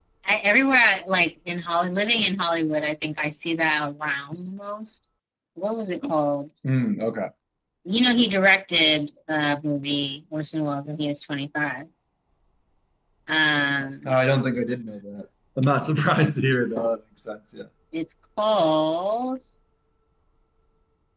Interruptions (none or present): none